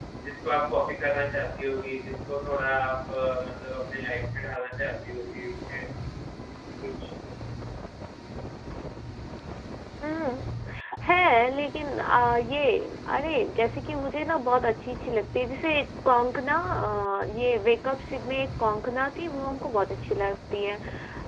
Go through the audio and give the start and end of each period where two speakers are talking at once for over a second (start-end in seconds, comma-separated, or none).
none